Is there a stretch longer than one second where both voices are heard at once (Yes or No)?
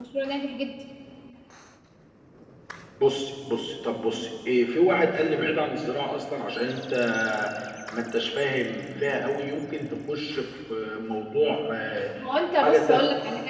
No